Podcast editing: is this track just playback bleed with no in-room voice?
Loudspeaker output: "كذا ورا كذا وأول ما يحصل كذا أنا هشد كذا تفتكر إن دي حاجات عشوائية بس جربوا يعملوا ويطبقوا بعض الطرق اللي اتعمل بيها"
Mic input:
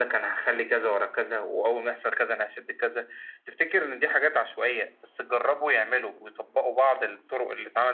Yes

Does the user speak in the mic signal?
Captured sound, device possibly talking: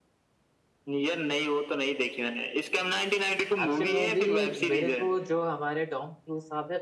Yes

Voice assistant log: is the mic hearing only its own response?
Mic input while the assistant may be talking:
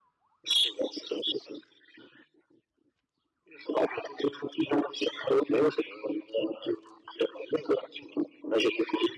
Yes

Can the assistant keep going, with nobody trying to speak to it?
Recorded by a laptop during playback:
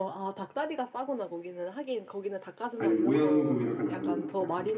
No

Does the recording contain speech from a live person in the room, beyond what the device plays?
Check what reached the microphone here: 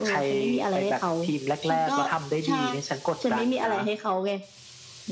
Yes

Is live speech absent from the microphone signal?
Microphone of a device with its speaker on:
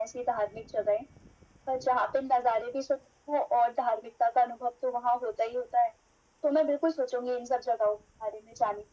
Yes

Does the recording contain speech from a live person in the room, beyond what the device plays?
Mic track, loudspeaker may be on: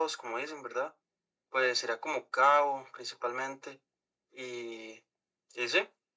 No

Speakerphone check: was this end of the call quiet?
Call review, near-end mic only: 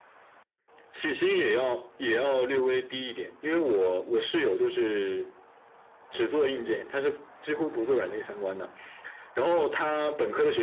Yes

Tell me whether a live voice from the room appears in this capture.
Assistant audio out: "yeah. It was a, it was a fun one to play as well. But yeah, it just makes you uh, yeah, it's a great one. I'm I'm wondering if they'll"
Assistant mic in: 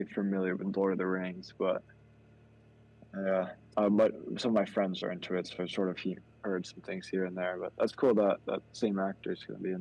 Yes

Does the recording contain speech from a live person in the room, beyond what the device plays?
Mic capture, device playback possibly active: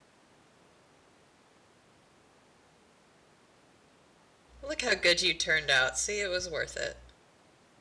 Yes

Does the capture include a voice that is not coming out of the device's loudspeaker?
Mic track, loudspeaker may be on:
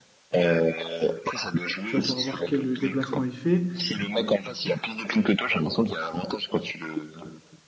Yes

